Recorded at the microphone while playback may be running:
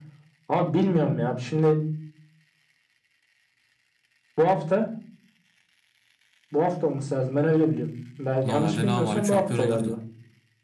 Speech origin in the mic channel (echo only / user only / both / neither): both